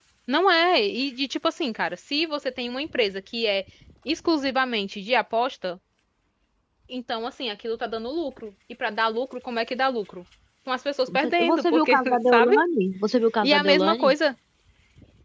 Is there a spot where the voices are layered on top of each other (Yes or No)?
Yes